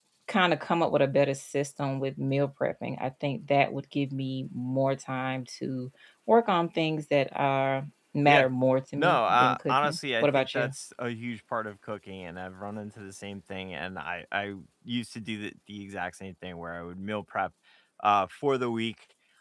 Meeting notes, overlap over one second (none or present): present